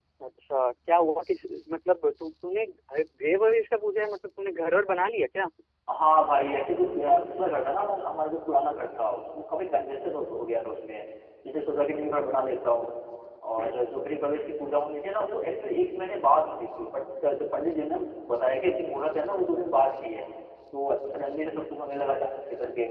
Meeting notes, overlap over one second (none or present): none